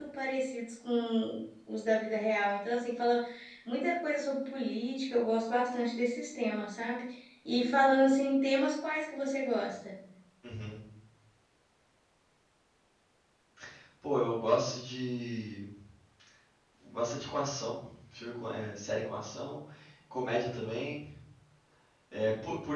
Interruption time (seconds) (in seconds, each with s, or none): none